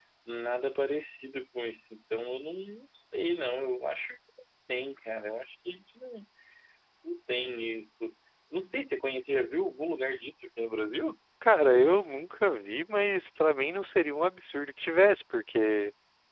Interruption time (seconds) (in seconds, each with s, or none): none